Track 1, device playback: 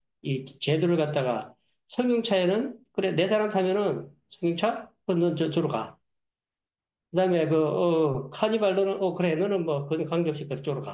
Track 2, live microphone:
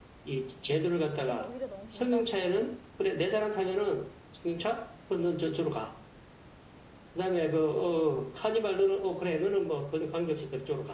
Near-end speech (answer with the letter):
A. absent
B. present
B